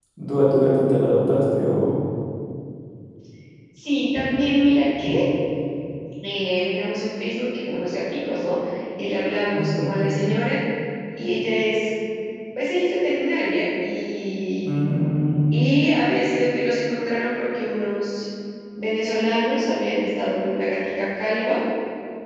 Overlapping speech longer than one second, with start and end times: none

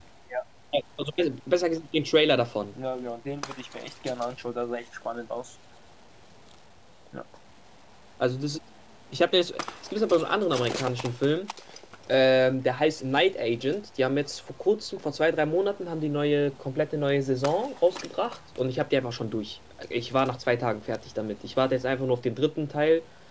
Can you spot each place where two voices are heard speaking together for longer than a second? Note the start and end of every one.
none

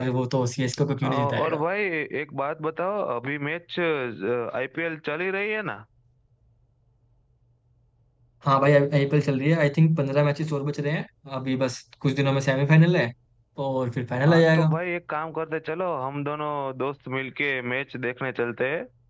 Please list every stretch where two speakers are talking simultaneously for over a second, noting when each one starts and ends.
none

